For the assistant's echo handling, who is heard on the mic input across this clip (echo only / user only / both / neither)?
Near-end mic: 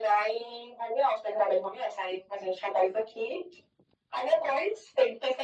echo only